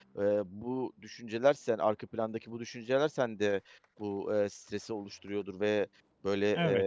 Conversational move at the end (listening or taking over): listening